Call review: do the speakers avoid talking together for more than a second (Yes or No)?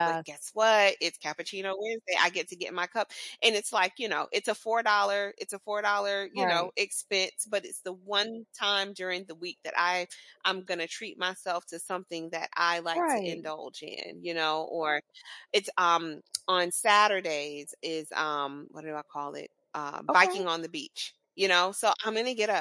Yes